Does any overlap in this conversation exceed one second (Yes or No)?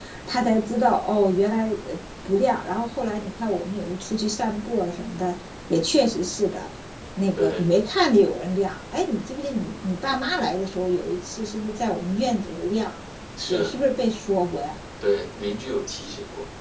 No